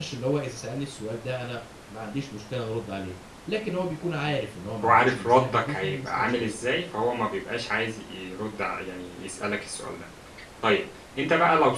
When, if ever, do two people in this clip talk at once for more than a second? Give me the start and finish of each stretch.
4.8-6.5

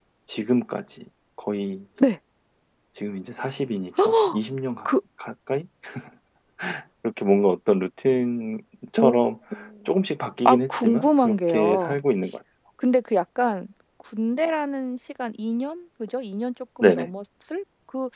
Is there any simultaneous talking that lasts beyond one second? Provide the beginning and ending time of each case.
10.4-12.0

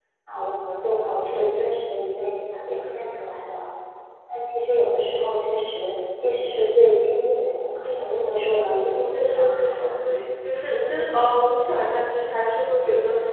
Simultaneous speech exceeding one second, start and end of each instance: 7.8-9.8

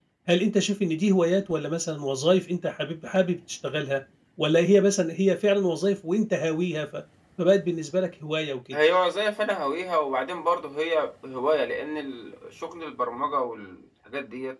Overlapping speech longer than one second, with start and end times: none

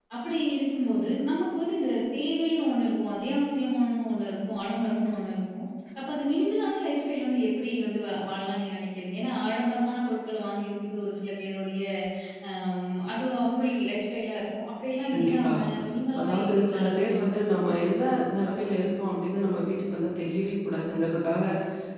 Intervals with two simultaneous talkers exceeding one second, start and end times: 16.2-17.8

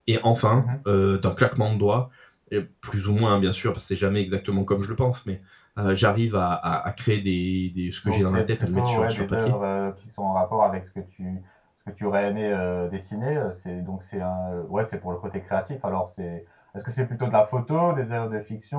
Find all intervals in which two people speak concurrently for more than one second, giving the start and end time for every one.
8.1-9.5

